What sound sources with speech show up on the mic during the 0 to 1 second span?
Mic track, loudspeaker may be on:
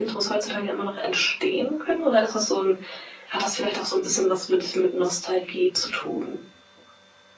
echo only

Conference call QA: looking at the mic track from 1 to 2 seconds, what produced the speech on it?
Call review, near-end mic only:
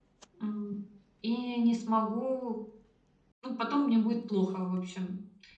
user only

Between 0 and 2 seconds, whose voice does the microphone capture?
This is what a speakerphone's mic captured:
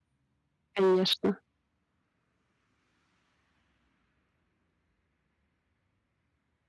user only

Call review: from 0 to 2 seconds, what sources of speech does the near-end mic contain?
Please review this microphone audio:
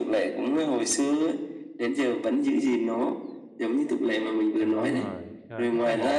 echo only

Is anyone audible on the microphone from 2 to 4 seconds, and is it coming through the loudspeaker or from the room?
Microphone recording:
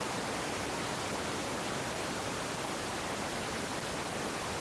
neither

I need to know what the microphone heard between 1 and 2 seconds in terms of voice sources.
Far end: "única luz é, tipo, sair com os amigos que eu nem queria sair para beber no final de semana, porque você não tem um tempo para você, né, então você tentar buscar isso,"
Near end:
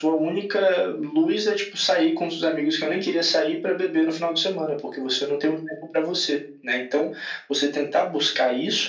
echo only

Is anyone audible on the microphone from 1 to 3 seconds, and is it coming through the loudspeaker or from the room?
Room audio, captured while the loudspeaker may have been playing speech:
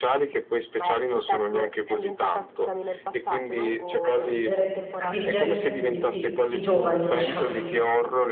echo only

